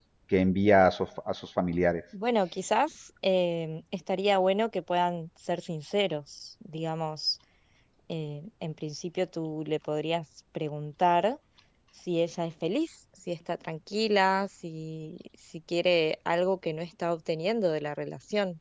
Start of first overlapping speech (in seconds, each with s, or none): none